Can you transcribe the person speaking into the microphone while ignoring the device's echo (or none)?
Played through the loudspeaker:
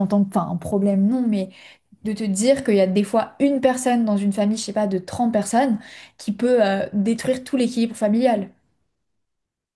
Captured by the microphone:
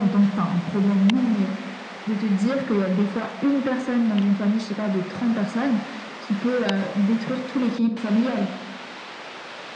none